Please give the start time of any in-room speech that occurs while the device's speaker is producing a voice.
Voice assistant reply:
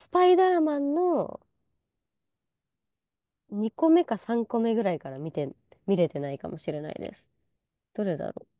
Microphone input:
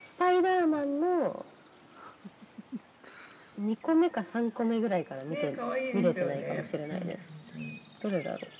5 s

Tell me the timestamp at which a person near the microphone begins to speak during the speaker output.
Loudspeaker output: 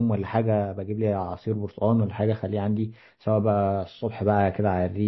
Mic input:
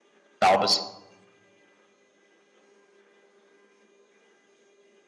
0 s

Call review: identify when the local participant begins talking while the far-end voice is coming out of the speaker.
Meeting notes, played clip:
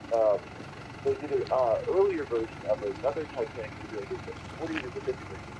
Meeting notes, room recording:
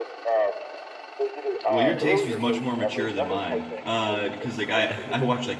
2 s

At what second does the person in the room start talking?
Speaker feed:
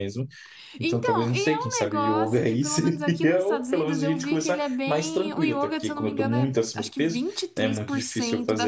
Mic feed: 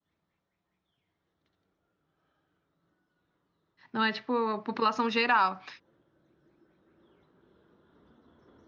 4 s

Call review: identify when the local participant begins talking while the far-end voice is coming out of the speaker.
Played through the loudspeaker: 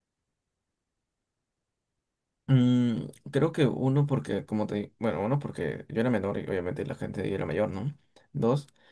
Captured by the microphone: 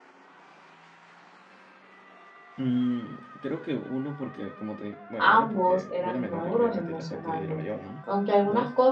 5 s

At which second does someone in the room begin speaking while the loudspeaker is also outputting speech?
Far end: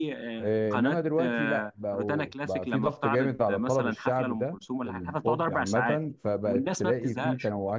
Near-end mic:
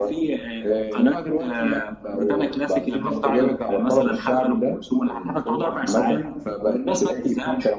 none

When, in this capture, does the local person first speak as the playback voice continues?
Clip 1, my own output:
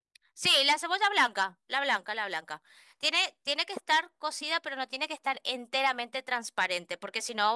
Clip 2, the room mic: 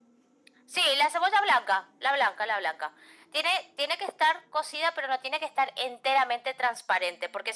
none

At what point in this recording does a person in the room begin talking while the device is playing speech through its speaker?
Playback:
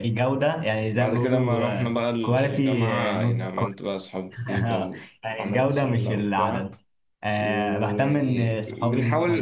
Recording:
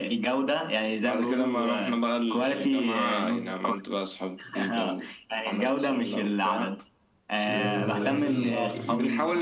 7 s

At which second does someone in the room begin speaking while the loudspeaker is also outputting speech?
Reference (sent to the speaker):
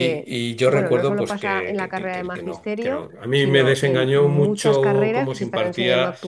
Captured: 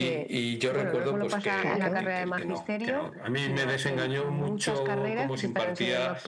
2 s

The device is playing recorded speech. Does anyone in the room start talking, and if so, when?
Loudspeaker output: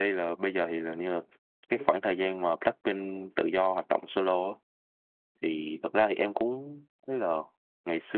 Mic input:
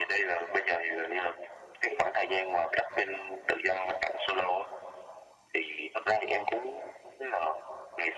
none

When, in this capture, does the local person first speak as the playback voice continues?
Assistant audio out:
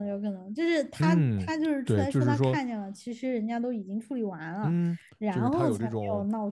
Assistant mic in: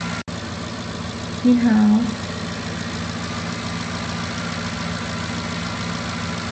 1 s

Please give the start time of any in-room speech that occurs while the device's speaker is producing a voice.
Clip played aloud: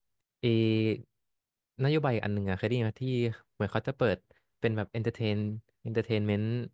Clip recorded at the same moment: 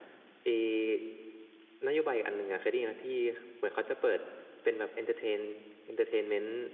none

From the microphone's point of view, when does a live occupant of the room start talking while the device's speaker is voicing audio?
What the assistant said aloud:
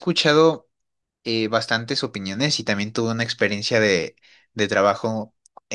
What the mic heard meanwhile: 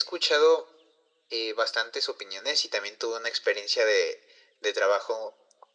none

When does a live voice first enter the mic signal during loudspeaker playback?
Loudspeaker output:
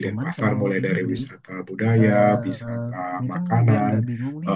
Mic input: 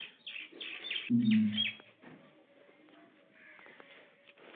1 s

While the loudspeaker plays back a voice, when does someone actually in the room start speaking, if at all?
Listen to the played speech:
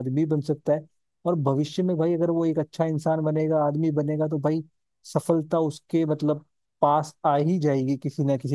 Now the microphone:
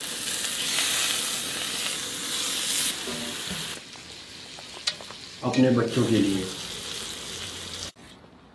5 s

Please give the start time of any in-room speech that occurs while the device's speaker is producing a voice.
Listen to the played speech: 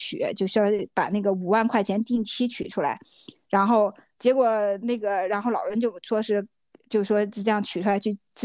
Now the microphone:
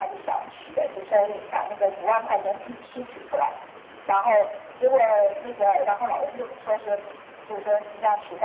none

